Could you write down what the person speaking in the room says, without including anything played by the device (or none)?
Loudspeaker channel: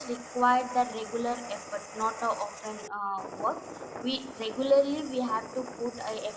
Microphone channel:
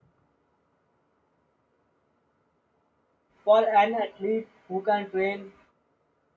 for an athlete who can train